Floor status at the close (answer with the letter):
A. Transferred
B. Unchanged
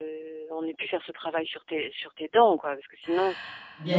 A